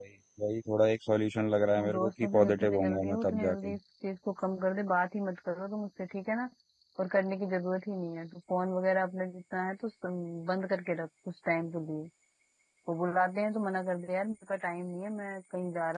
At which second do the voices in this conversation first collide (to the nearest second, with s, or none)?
2 s